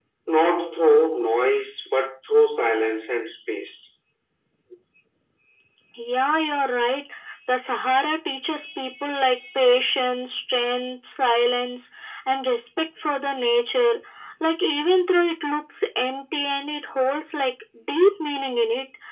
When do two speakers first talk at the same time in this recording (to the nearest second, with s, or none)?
none